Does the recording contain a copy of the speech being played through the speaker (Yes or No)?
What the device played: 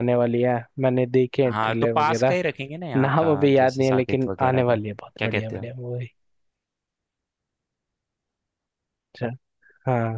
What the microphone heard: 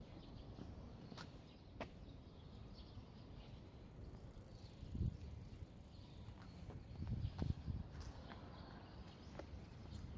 No